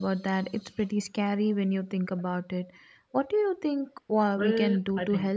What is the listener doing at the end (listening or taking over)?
taking over